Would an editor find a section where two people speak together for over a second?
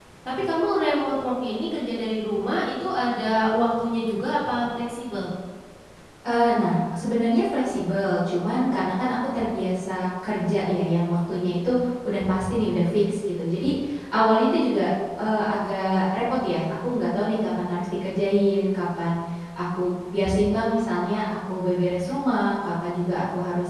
No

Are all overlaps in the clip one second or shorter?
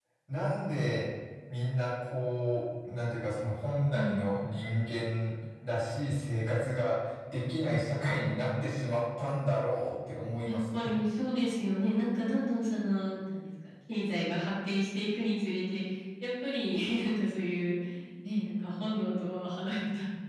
Yes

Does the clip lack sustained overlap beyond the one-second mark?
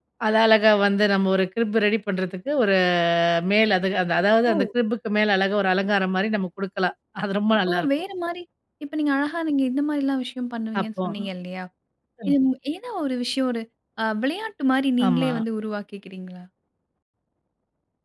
Yes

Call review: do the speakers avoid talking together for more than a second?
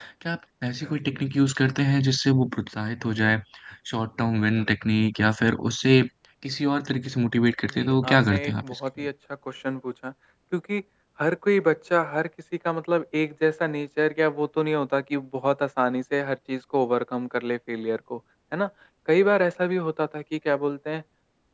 No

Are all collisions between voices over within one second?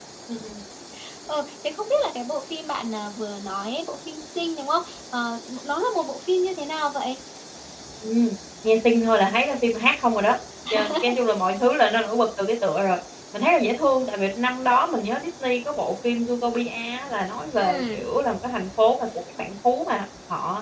Yes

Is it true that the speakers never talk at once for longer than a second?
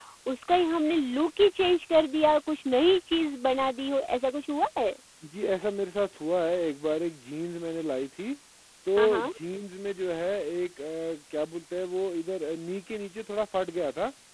Yes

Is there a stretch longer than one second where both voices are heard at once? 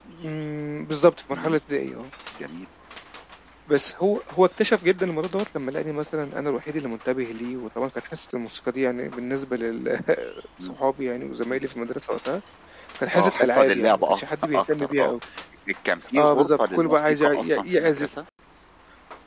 Yes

